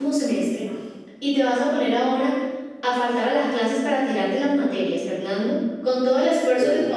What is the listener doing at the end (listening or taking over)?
listening